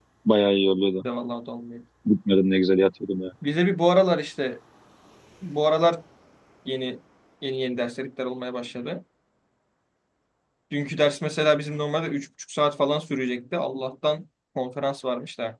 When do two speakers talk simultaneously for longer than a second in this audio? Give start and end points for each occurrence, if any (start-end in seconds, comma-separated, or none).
none